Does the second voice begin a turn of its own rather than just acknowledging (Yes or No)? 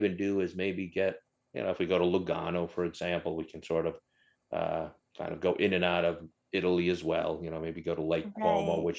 No